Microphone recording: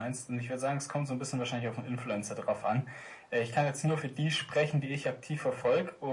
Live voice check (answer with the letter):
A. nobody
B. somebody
A